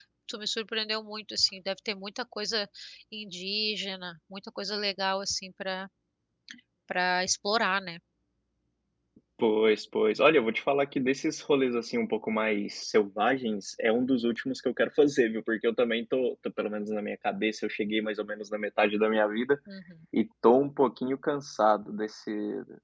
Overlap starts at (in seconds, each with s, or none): none